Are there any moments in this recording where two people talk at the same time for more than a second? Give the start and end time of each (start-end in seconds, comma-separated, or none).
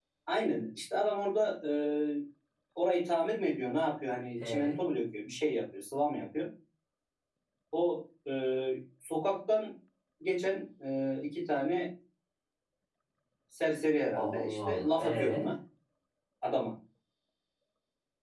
14.2-15.4